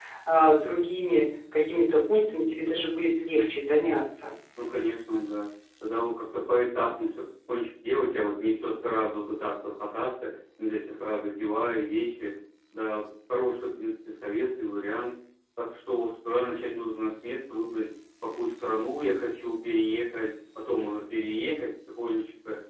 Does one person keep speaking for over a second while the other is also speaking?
No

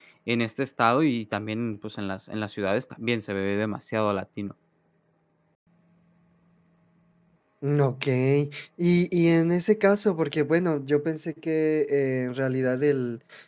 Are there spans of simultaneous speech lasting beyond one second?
No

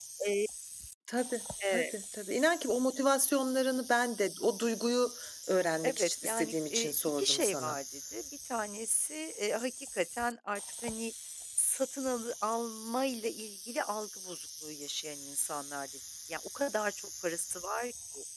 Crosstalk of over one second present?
Yes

